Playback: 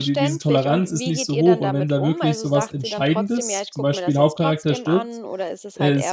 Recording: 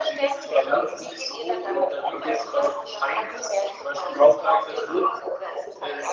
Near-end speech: none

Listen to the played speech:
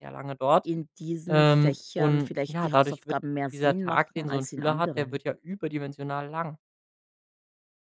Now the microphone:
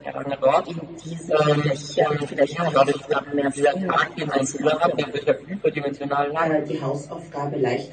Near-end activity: present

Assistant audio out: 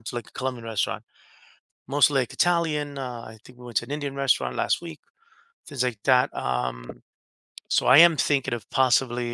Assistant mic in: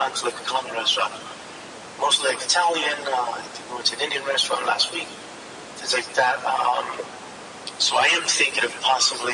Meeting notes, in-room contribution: none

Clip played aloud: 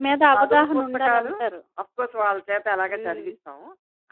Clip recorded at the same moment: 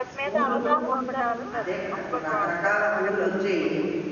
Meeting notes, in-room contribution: present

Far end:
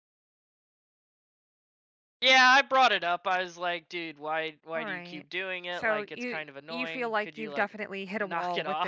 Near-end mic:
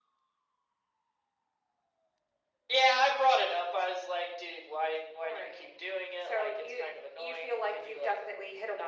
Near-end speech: none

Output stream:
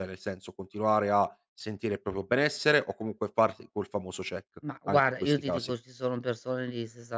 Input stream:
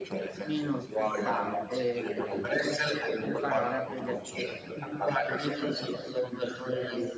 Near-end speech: present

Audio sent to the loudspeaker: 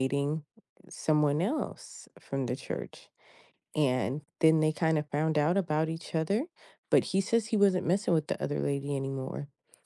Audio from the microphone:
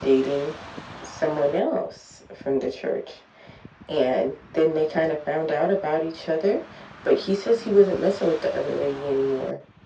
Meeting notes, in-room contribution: none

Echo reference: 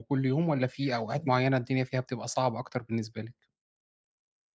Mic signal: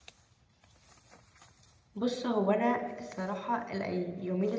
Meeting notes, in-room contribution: present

